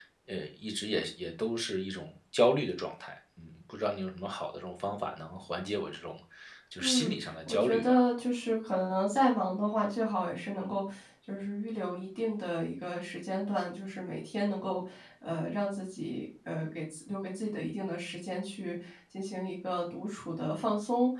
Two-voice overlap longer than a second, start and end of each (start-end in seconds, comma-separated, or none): 6.8-8.0